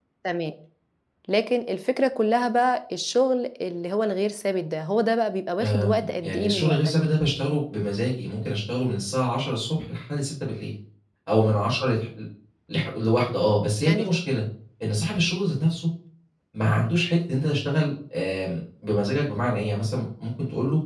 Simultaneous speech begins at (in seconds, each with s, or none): 5.6 s